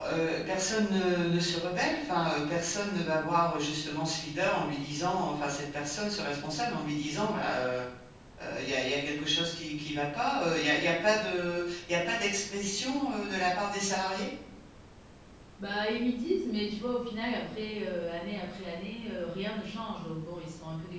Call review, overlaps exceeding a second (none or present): none